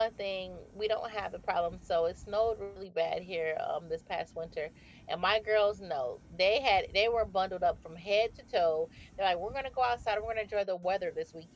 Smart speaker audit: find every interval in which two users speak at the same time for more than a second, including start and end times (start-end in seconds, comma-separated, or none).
none